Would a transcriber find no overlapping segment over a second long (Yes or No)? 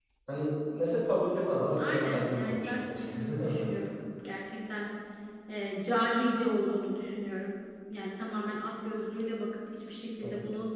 No